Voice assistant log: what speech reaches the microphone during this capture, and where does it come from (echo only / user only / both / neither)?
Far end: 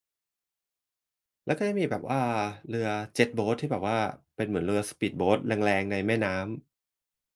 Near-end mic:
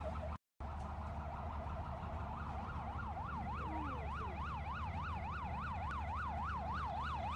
neither